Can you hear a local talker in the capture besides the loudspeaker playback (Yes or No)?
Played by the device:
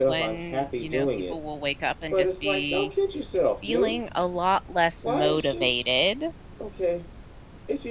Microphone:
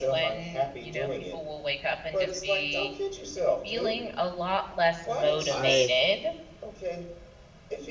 Yes